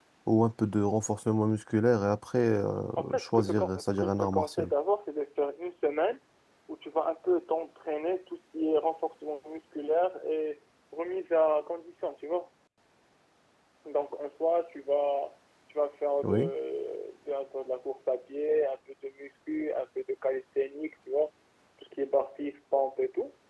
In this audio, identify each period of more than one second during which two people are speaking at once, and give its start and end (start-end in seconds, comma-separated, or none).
3.2-4.7